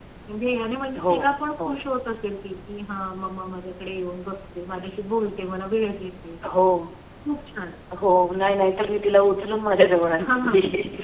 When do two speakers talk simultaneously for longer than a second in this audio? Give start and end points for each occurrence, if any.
none

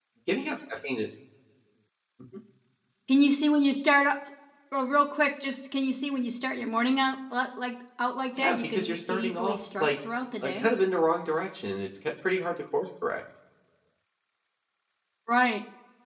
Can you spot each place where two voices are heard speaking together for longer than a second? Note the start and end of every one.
8.4-9.9

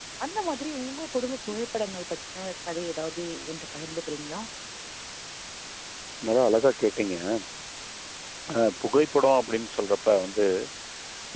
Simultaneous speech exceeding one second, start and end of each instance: none

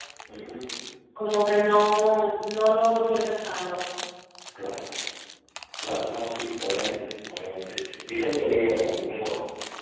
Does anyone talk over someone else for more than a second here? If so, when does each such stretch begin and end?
none

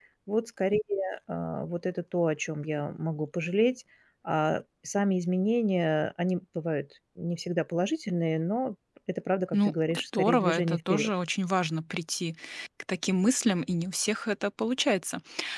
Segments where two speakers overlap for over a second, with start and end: 9.5-11.1

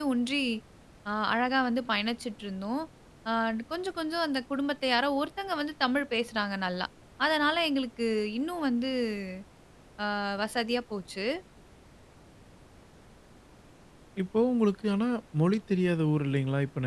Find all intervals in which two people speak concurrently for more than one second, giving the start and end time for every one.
none

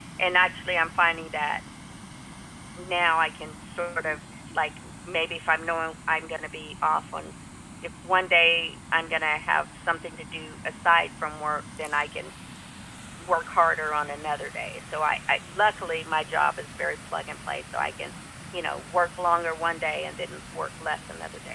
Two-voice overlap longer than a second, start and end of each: none

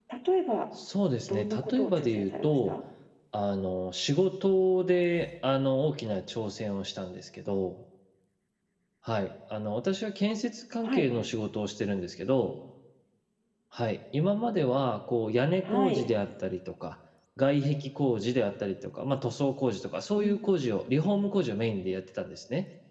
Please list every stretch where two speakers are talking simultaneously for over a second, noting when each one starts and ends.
1.3-2.7

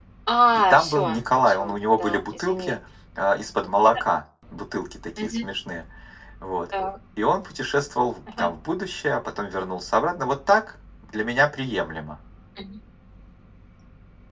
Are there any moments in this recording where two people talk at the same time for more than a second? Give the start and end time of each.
0.5-2.8

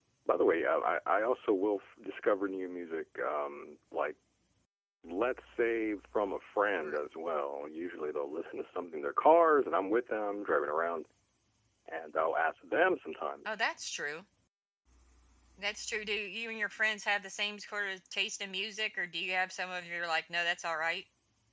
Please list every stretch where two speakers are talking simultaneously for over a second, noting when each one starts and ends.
none

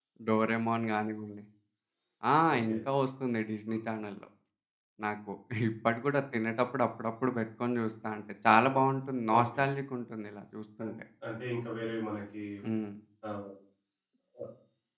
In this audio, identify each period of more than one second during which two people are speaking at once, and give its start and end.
none

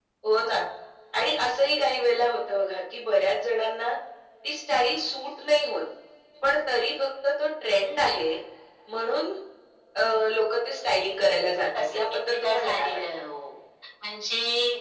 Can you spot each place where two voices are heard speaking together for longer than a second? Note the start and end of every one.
11.8-13.0

